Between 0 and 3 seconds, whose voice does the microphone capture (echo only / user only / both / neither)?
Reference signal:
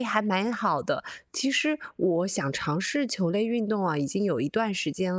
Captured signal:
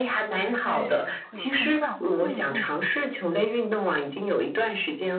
both